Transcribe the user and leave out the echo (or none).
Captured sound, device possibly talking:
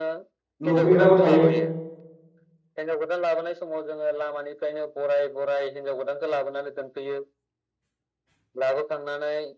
लुफैग्राबो थायो